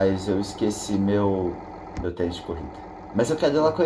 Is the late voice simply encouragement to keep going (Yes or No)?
Yes